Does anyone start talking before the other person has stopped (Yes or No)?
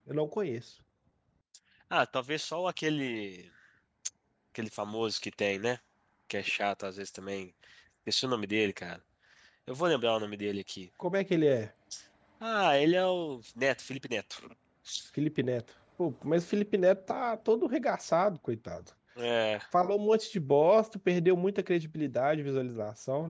No